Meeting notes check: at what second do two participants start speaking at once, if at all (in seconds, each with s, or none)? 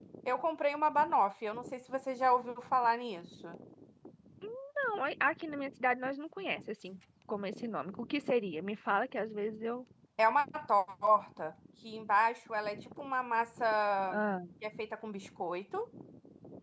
none